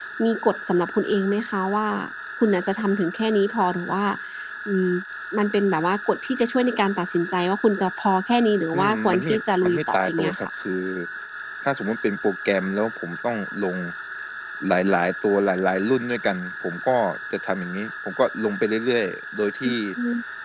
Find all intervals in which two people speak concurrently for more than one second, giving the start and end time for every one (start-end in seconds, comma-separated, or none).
8.7-10.4